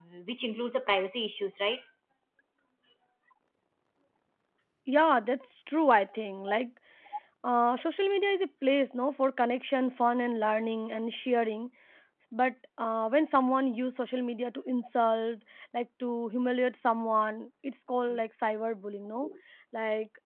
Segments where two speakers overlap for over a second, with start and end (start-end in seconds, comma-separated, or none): none